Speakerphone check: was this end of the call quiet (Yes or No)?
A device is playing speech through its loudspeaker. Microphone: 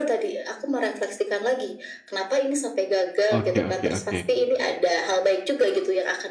No